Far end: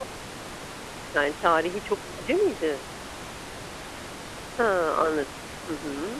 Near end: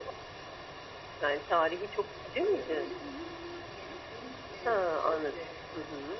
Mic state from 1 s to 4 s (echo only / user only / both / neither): both